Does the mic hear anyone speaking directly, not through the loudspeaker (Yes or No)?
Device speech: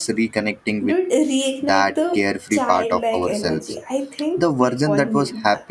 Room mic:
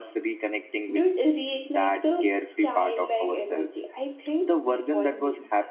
No